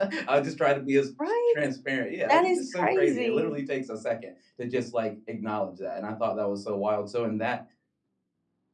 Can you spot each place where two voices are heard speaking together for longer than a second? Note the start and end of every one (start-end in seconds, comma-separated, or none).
2.3-3.6